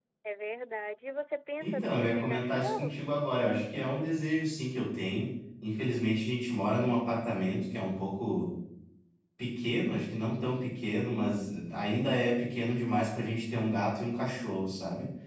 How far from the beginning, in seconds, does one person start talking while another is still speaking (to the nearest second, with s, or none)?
2 s